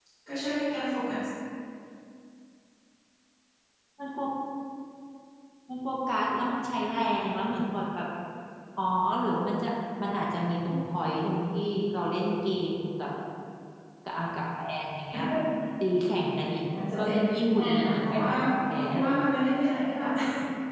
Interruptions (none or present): present